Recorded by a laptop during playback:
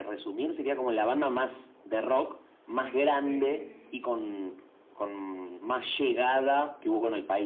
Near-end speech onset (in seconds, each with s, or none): 3.2 s